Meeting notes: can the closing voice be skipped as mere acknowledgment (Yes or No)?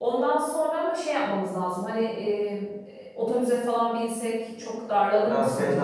No